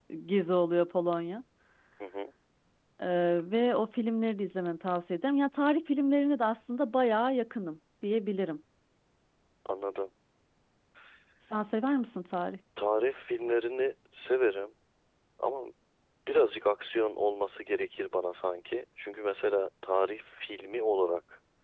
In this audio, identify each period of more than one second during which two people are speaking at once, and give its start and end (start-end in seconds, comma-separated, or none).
none